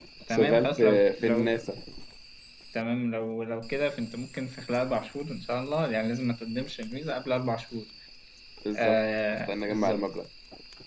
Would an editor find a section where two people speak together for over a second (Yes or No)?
Yes